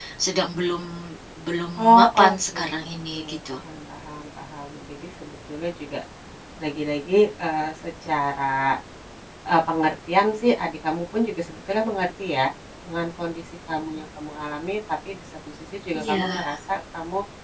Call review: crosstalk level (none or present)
present